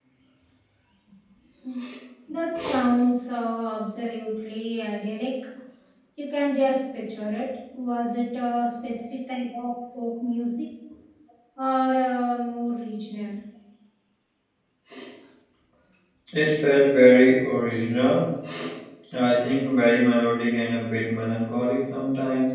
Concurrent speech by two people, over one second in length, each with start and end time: none

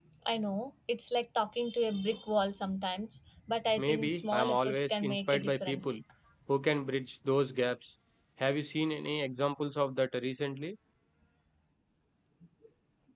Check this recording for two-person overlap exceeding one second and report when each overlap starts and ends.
3.8-6.0

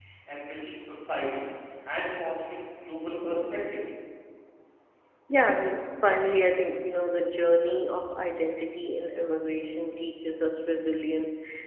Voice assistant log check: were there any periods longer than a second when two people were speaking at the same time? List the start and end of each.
none

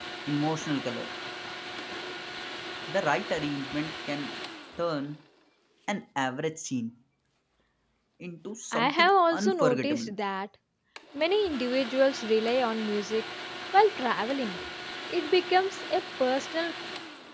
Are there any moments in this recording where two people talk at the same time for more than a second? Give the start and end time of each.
8.7-10.1

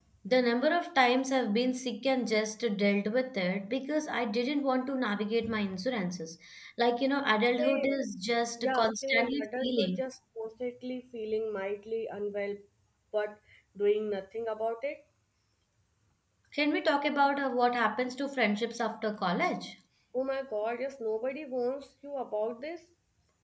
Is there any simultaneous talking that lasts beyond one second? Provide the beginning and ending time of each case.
8.6-10.0

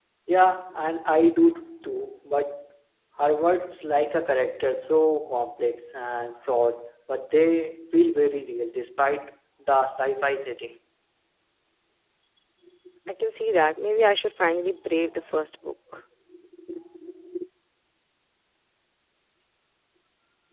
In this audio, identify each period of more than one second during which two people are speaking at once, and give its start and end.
none

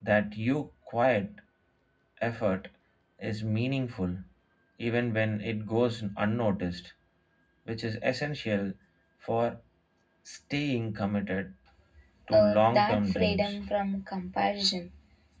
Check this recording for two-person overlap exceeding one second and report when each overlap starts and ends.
12.3-13.6

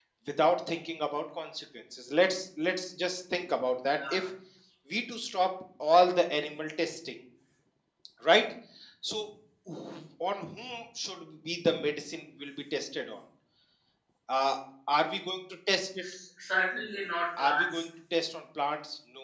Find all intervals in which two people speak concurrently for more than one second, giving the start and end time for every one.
none

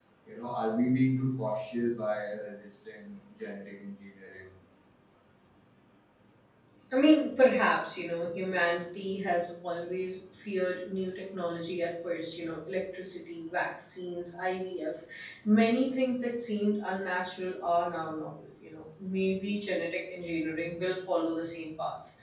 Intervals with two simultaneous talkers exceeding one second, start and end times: none

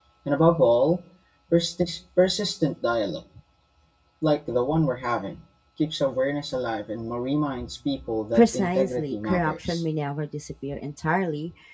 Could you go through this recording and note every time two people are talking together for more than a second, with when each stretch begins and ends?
8.3-9.8

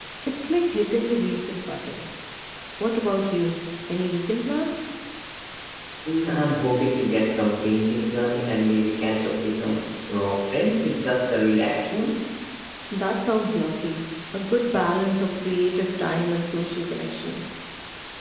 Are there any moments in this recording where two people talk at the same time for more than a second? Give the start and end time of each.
none

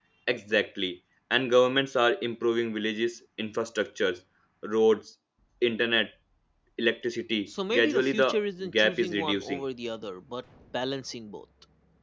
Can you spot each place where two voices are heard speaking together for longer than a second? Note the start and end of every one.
7.5-9.6

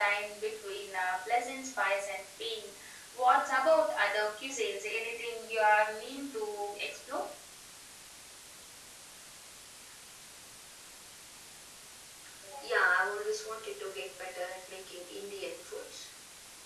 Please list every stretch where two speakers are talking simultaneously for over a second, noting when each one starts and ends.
none

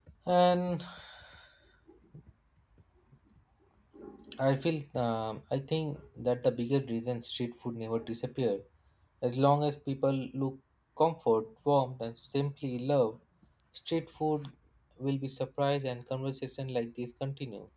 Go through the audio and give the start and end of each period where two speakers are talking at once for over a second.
none

